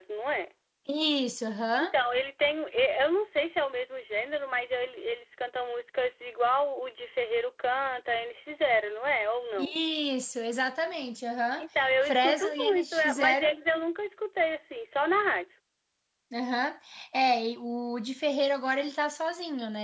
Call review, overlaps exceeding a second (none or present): present